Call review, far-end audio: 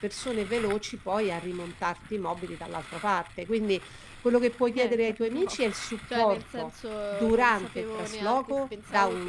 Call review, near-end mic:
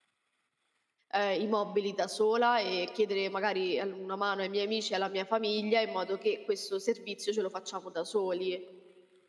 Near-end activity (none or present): present